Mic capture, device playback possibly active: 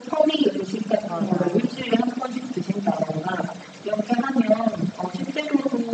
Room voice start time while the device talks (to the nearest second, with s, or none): 1 s